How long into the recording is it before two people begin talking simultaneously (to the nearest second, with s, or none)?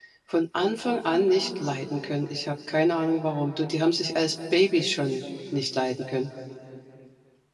none